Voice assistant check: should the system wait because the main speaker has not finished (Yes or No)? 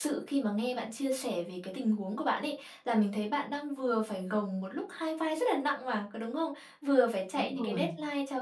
Yes